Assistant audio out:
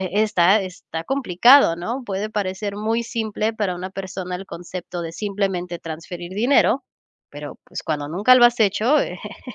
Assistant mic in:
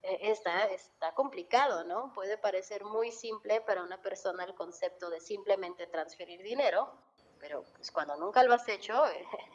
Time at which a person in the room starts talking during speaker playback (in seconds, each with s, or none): none